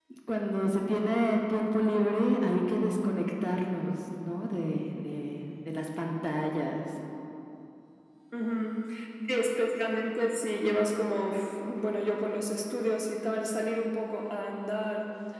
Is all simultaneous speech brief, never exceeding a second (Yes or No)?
Yes